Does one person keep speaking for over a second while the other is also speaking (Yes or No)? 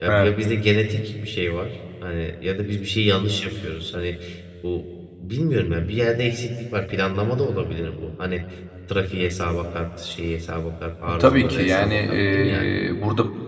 Yes